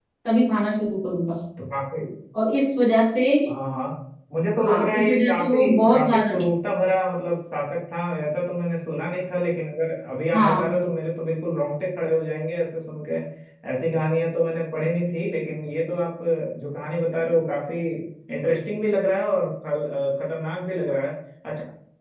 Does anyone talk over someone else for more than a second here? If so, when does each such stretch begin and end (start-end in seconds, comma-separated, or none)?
4.6-6.3